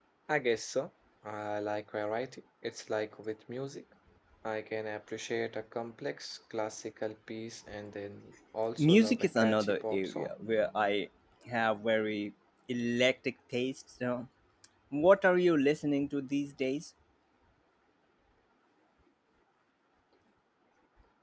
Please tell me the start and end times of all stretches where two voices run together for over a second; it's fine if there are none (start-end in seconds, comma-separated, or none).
8.8-10.3